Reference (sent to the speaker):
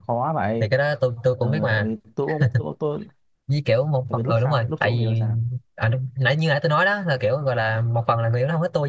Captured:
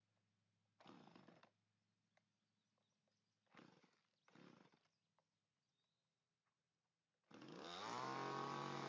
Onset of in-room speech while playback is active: none

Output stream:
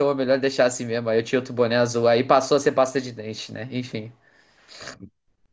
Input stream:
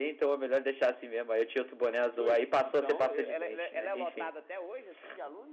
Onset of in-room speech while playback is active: 2 s

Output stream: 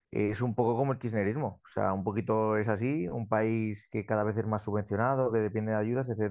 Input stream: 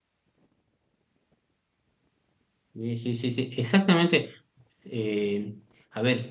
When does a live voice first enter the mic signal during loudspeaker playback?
3 s

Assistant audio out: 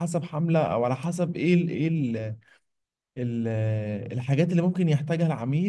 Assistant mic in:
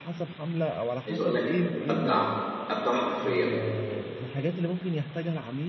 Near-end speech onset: 1 s

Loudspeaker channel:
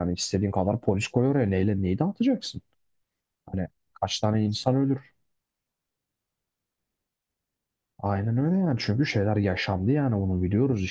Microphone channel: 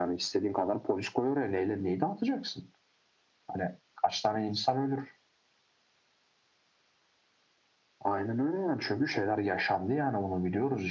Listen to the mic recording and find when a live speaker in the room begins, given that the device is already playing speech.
none

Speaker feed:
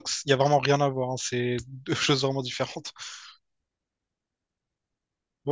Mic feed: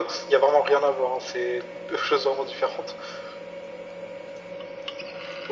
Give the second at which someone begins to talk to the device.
none

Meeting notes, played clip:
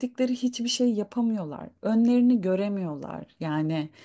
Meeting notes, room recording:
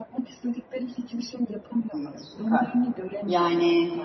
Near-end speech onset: 2 s

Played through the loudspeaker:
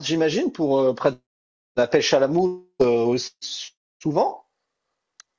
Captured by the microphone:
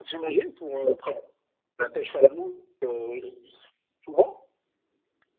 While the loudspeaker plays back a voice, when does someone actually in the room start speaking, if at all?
none

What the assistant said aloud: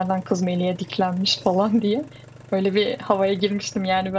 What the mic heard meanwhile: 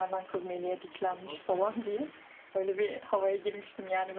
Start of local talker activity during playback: 1 s

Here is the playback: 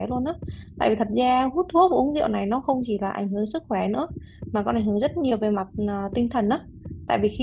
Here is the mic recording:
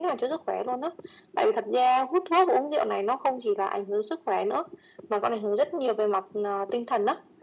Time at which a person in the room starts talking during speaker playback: none

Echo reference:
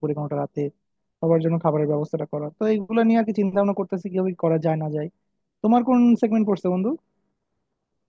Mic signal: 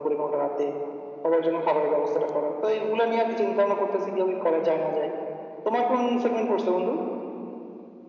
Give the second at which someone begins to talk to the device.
none

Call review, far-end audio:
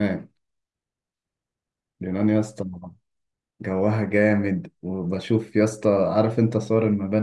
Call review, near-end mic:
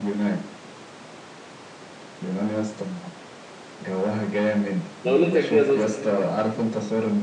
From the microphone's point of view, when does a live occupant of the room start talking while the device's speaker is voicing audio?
5 s

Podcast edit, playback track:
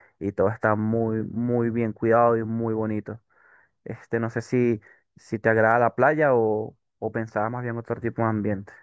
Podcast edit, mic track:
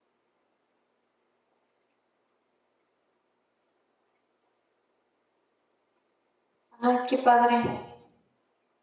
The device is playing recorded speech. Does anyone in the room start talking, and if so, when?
7 s

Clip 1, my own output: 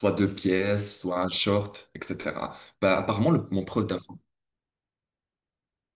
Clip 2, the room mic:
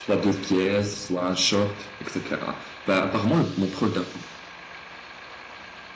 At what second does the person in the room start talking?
none

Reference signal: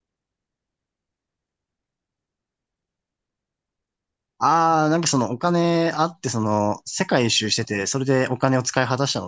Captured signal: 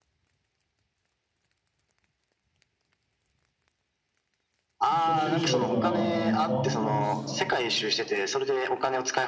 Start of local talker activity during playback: 5 s

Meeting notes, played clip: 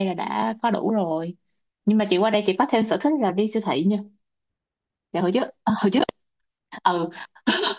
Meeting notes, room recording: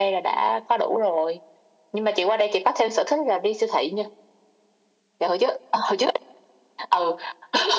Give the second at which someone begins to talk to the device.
none

